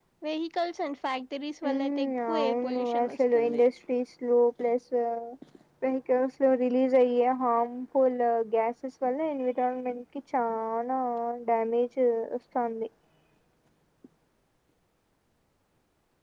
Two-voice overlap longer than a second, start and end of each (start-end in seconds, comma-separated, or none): 1.7-3.6